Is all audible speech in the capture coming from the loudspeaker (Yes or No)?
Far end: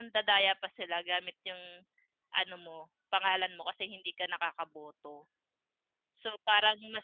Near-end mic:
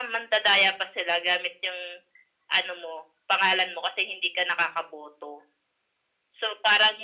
Yes